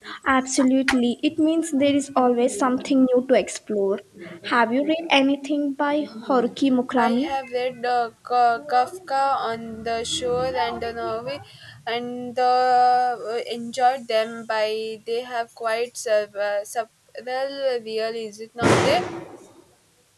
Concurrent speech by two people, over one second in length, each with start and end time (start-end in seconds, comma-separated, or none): none